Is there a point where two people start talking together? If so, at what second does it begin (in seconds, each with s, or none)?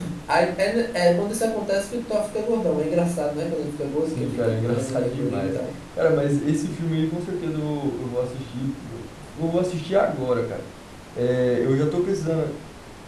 4.1 s